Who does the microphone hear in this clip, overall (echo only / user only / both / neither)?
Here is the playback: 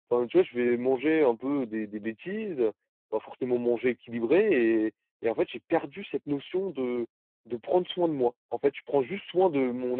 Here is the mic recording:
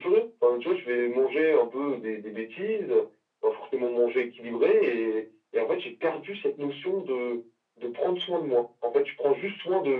echo only